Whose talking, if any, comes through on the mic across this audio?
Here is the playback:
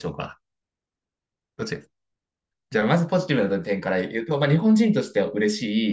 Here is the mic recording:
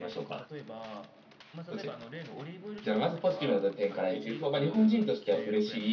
both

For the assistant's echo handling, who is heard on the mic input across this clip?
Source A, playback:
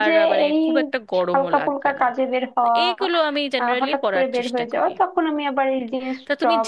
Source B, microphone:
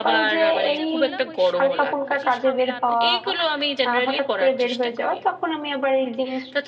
both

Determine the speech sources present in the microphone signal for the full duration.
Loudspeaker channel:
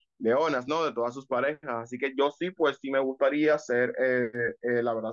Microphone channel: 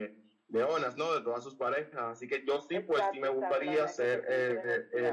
both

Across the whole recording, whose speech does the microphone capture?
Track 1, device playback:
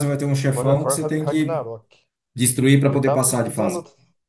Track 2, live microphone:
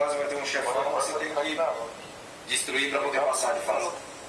echo only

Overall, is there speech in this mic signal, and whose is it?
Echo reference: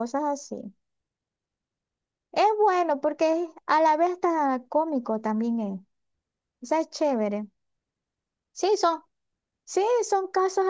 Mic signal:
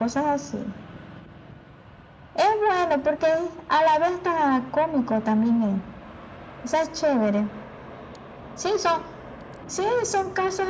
echo only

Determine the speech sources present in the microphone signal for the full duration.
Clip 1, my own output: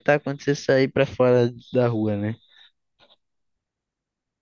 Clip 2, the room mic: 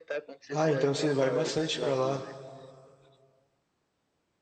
both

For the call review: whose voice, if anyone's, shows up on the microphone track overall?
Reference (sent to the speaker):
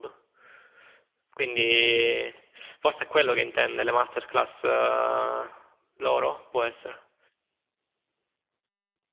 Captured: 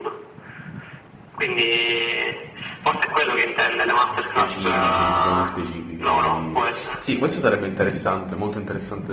both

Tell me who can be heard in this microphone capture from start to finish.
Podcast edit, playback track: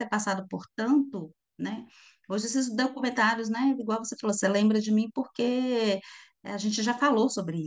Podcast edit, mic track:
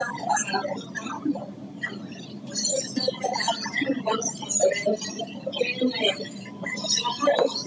echo only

